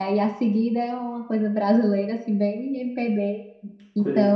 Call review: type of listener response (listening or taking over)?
listening